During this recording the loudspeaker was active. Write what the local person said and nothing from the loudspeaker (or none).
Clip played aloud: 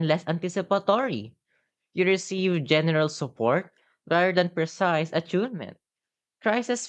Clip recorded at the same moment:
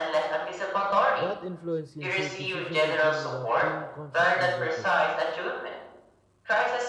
That influence can shape decision making without being consciously noticed.